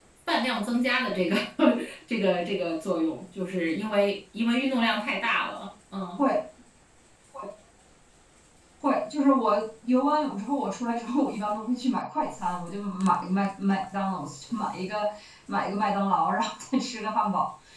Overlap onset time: none

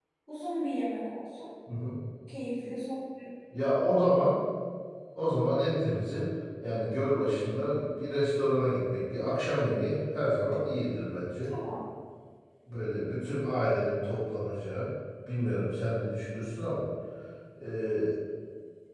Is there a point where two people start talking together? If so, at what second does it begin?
none

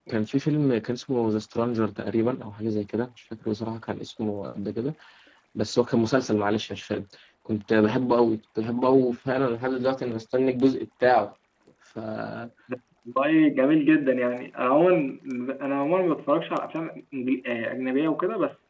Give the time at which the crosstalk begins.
none

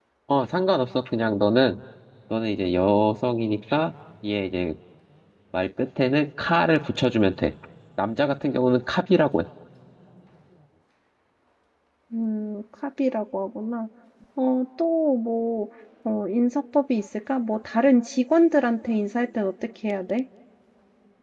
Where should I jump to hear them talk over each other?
none

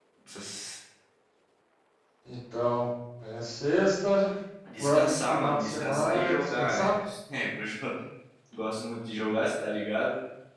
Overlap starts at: 4.8 s

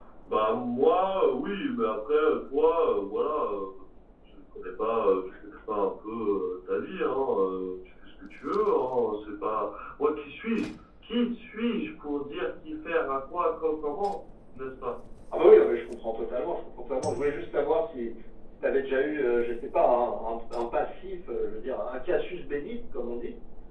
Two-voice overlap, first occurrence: none

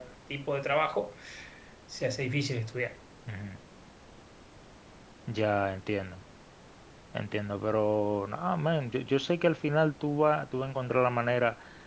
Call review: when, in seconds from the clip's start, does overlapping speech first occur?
none

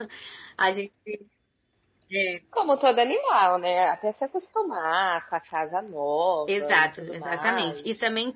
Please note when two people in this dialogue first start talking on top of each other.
6.5 s

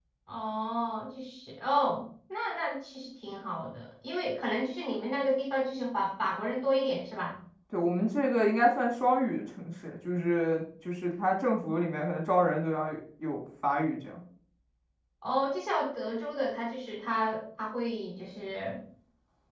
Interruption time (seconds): none

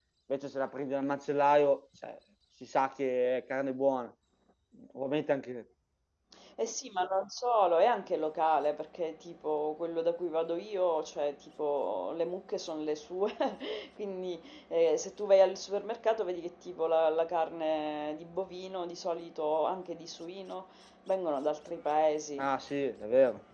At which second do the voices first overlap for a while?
none

